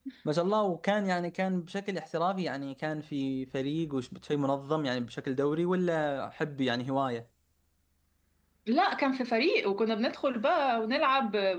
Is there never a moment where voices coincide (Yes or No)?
Yes